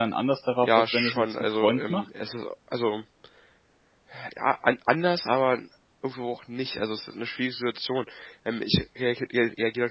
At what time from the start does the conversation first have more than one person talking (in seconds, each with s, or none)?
0.6 s